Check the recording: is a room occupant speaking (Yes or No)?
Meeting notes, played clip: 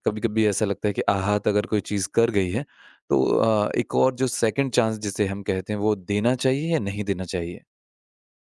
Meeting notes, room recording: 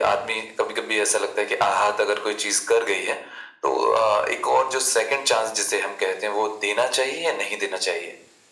No